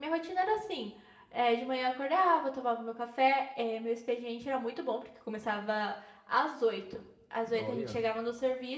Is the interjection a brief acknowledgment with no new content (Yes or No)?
Yes